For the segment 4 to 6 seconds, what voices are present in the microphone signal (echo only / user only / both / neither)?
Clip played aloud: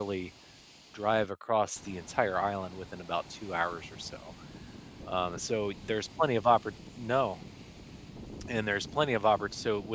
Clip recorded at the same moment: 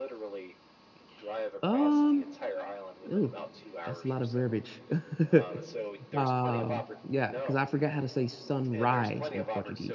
both